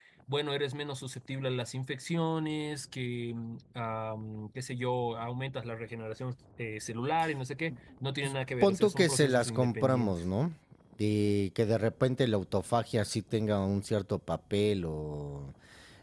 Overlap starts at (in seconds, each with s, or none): 8.6 s